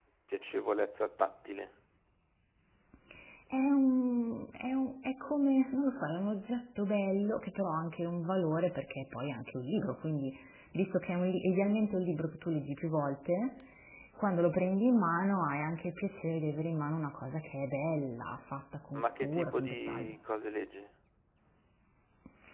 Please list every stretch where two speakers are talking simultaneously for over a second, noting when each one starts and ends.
18.9-20.1

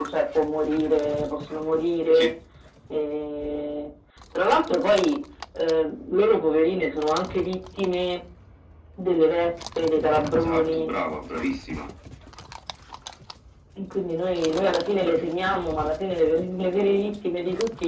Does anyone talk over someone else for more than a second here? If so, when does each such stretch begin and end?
none

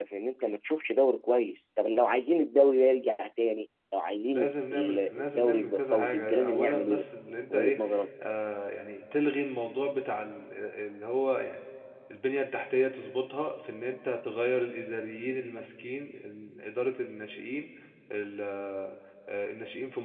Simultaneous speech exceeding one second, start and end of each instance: 4.3-7.0

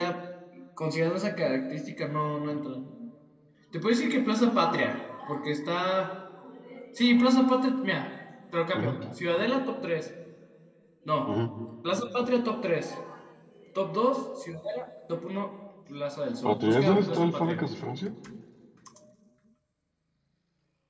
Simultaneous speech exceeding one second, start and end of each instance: 16.4-17.7

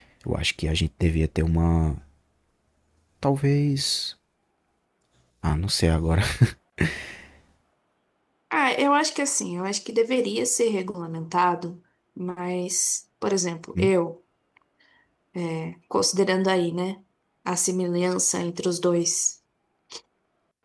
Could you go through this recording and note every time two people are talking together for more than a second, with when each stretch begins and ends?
none

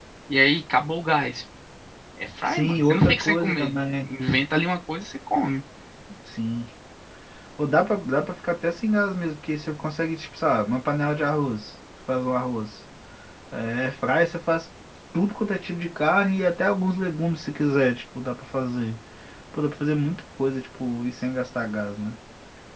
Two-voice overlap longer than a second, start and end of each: 2.4-4.1

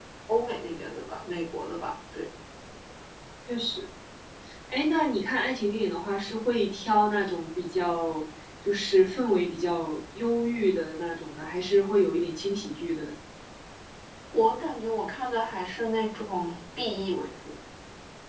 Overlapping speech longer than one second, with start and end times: none

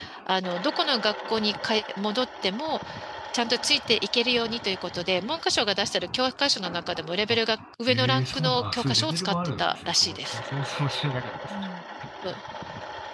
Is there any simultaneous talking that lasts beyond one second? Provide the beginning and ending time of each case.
7.9-10.4

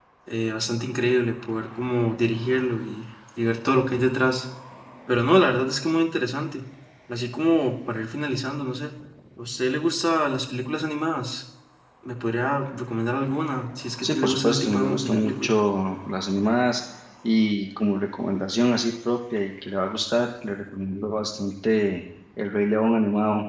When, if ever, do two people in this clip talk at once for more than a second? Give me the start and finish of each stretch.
14.0-15.5

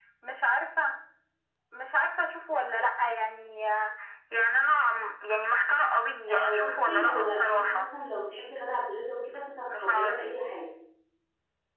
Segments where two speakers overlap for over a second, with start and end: 6.3-7.9

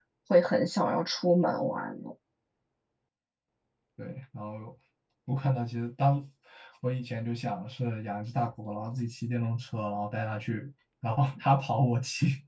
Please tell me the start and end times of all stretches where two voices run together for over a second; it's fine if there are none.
none

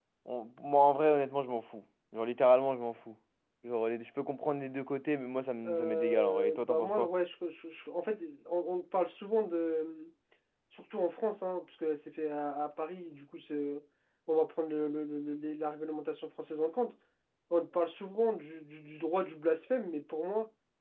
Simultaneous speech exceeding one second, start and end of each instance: 5.6-7.1

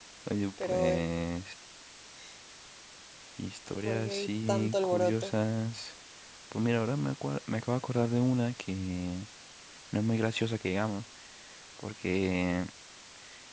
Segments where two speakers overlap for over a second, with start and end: 3.9-5.3

